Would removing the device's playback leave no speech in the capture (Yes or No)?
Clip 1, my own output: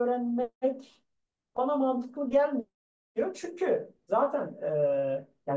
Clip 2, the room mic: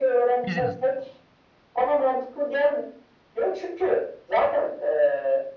No